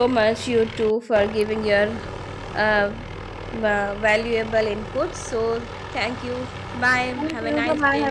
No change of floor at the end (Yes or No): No